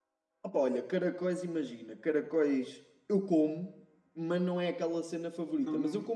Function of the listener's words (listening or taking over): listening